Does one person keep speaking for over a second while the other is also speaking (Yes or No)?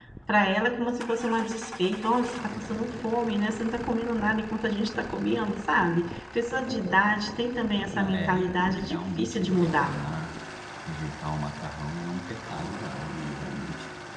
Yes